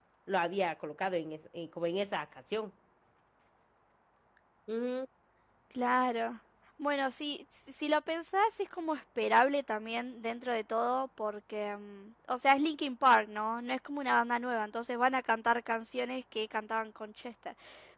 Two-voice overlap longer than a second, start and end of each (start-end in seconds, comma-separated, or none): none